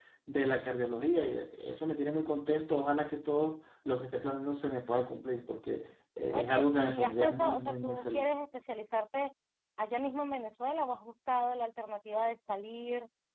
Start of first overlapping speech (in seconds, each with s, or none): 6.3 s